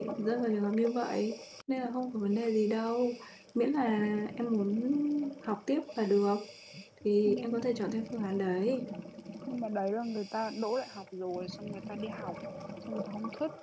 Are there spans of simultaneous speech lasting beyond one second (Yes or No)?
No